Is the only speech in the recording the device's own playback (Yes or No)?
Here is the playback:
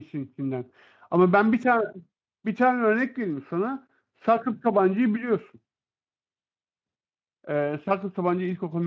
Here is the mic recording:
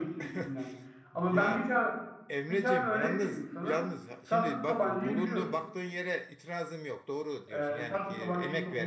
No